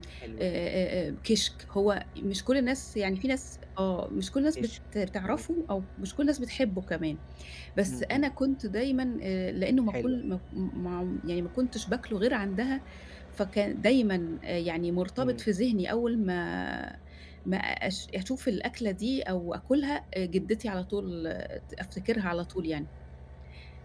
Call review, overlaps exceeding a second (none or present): none